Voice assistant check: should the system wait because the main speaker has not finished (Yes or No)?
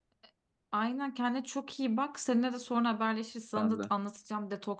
Yes